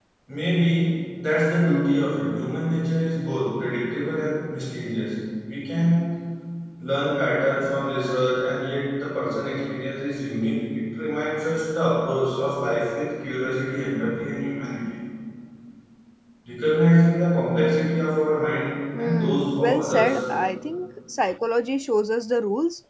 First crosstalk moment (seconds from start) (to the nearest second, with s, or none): 19 s